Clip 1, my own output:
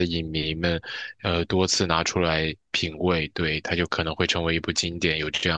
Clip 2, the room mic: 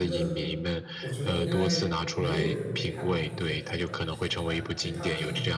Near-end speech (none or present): present